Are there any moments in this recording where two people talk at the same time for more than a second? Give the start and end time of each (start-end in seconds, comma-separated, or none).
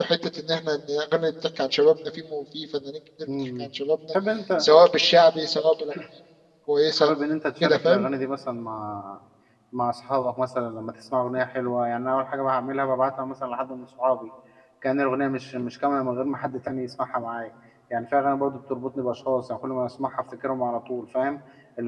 none